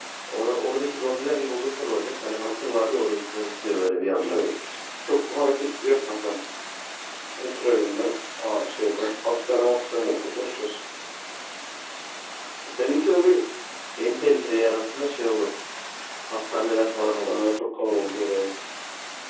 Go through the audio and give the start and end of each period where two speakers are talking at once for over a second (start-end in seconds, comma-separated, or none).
none